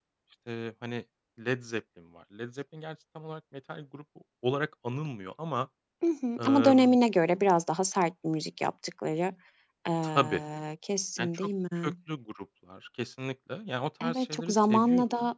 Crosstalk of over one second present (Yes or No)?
Yes